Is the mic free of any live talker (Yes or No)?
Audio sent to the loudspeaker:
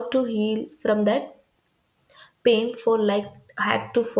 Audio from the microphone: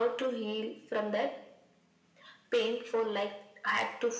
Yes